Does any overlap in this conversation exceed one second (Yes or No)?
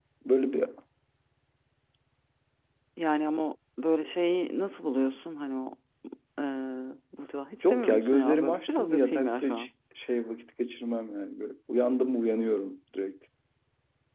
Yes